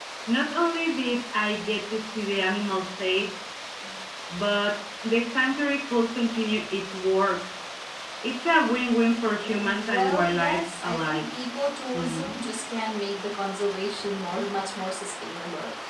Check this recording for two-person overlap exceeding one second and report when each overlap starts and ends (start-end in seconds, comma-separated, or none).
9.5-11.3